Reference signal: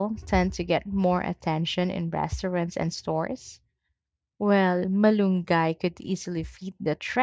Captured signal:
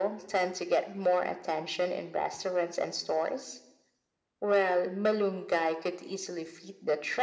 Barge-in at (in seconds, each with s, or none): none